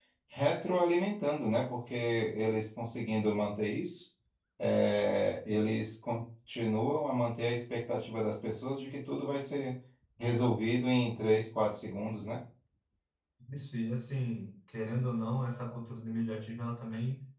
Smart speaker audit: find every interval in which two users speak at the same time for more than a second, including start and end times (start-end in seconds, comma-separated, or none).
none